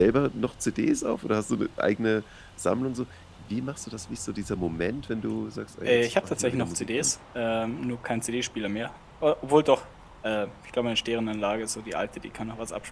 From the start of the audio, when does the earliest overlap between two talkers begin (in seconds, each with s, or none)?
5.8 s